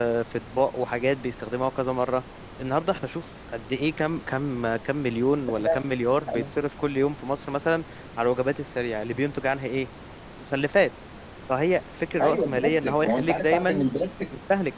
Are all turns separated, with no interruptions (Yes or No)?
No